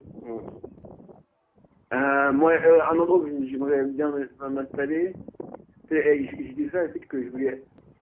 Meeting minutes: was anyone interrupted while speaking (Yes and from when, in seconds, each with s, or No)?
No